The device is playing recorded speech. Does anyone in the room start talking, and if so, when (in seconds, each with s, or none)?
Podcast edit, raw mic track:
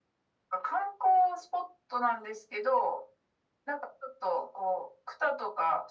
none